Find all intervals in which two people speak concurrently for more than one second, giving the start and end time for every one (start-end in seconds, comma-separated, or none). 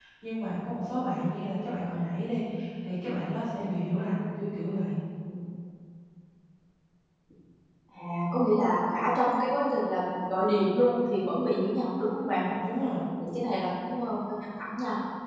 none